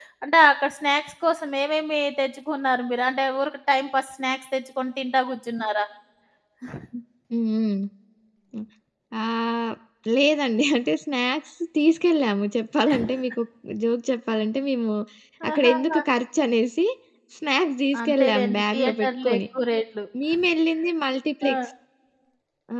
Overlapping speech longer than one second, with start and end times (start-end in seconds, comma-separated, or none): 18.0-19.4